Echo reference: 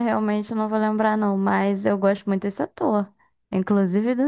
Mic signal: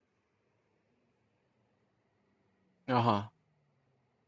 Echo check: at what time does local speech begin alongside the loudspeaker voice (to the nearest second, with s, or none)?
3 s